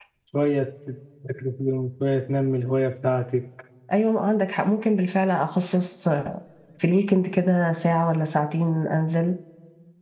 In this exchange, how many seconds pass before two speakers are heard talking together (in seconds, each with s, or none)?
none